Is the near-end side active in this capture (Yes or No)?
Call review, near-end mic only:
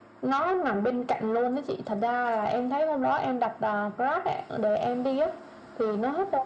No